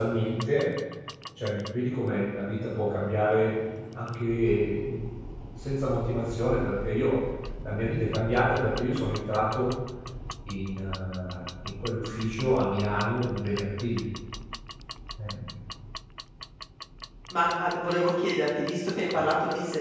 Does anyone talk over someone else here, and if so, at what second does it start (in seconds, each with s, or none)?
none